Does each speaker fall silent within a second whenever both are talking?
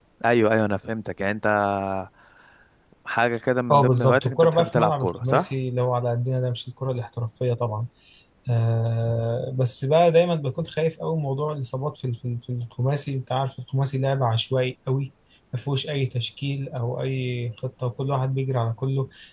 No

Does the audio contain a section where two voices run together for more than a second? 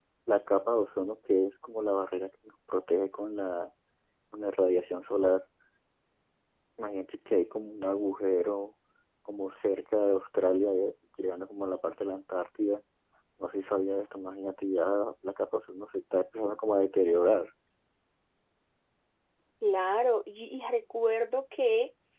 No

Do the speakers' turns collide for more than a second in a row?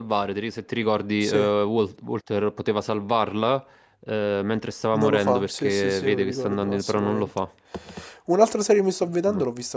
Yes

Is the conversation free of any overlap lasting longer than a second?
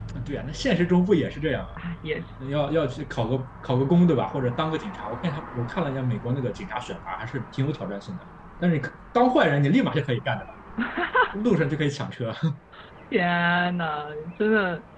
Yes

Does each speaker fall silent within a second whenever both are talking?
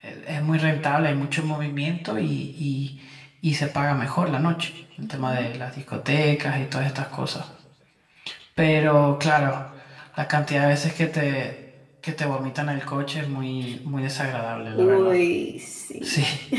Yes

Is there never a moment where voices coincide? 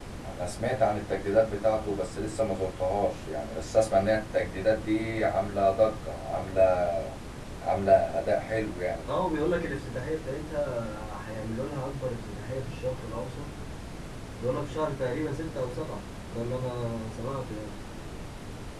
Yes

